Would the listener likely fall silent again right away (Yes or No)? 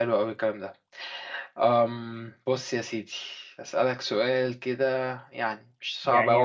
No